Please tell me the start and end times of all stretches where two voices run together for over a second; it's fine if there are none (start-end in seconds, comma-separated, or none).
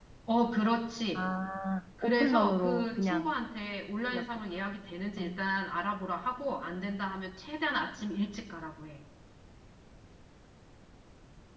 2.0-3.3